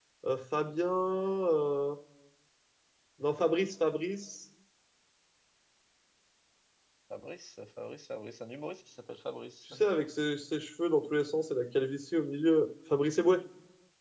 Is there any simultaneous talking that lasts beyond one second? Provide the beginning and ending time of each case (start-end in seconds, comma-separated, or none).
none